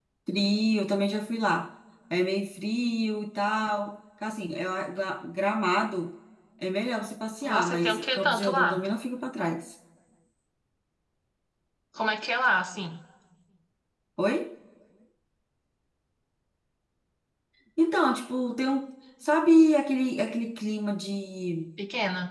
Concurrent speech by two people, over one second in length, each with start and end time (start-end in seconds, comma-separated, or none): 7.5-8.8